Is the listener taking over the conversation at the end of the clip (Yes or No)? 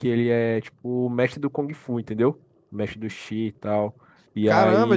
Yes